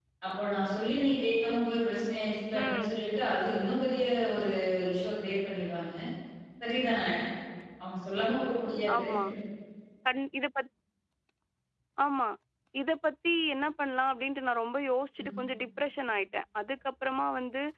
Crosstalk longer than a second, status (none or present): none